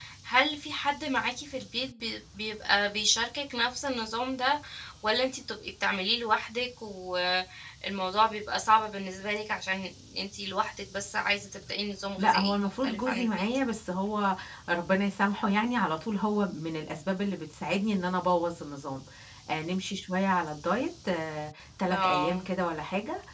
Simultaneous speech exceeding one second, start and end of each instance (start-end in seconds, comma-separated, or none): 12.2-13.4